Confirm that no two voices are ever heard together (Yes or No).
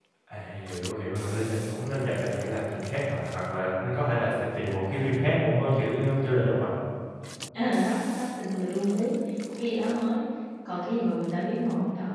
Yes